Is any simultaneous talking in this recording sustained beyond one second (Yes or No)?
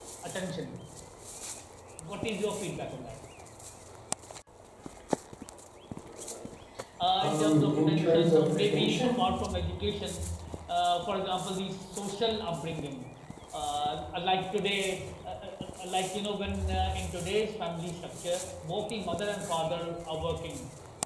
Yes